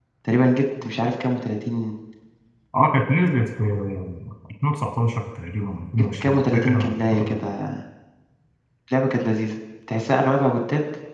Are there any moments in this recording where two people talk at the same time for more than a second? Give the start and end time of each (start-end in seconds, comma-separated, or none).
6.1-7.4